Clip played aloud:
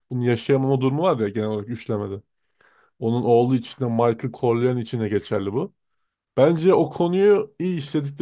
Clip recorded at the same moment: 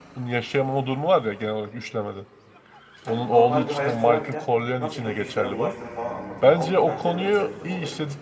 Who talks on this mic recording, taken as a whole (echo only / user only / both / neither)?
both